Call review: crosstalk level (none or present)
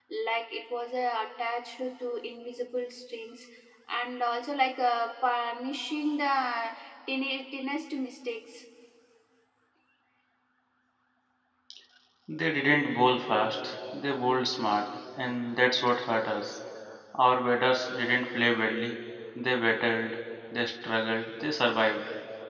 none